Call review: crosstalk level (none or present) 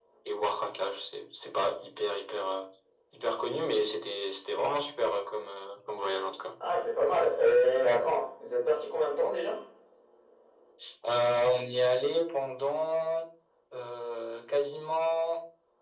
none